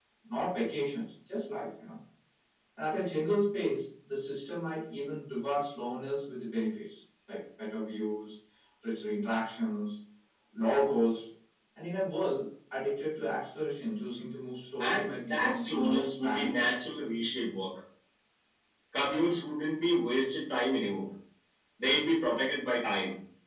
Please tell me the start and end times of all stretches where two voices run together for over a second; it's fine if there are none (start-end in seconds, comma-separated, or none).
14.8-16.7